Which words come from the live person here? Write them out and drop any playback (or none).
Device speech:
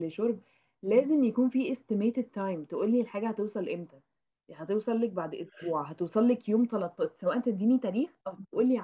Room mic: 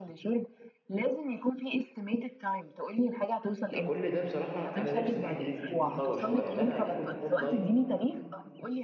فكل ده بصراحه انا نفسي الحته دي تت- تتطور شويه ان انا يكون اونلاين